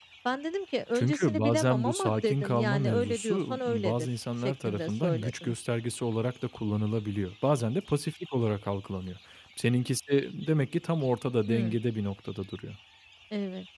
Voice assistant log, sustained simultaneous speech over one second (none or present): present